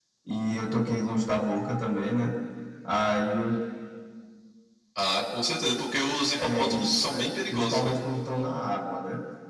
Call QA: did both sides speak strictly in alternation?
No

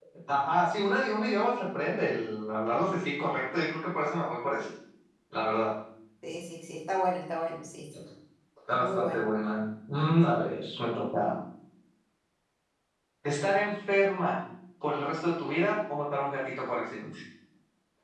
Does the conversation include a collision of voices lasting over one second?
No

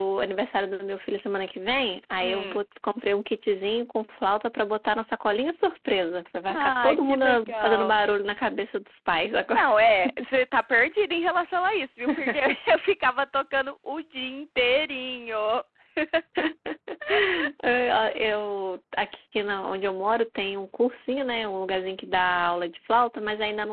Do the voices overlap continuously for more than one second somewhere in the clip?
Yes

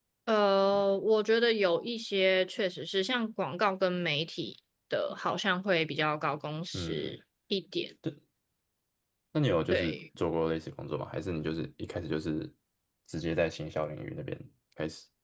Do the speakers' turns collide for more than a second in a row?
No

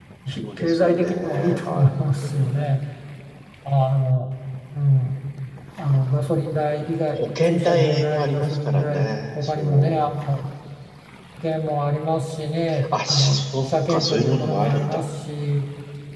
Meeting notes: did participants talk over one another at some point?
Yes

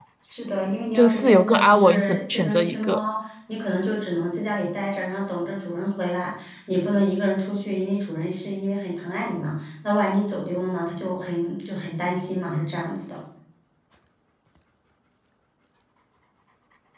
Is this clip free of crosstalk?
No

